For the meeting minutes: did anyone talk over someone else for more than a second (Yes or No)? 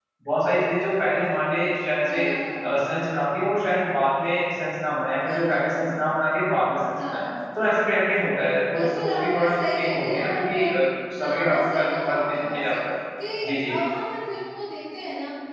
Yes